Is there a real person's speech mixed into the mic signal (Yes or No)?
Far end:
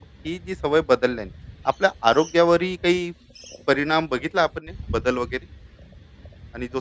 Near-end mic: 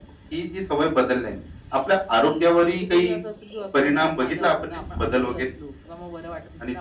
Yes